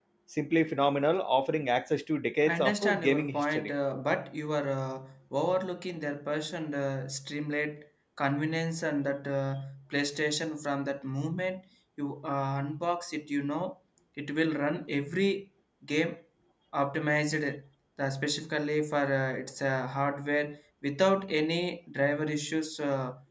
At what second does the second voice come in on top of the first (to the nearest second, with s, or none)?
2 s